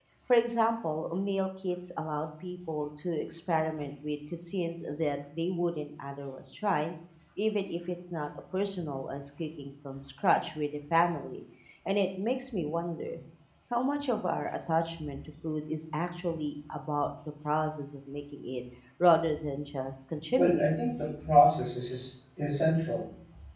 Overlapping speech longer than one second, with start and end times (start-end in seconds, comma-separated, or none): none